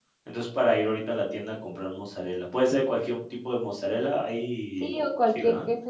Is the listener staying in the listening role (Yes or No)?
No